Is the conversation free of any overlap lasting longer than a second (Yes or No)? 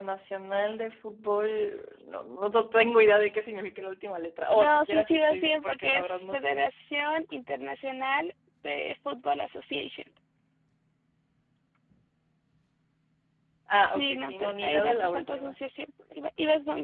No